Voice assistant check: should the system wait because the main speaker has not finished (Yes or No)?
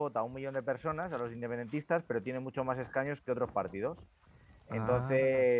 Yes